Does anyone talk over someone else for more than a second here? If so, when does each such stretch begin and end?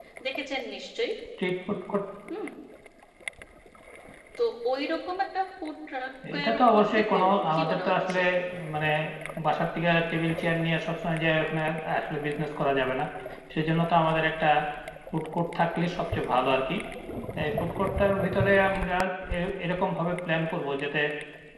6.4-8.2

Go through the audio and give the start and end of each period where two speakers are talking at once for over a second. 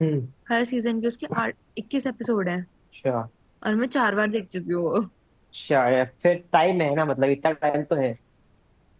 none

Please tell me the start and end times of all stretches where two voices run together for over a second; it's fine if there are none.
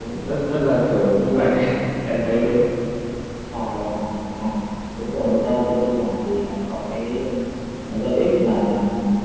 none

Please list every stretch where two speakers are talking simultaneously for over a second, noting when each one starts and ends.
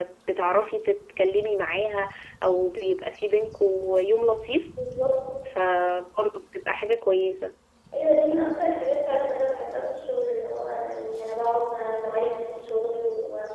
none

